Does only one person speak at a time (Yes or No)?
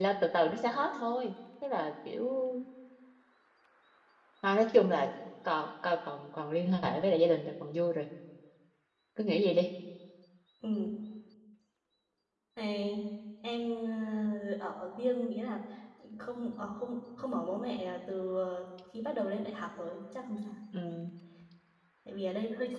Yes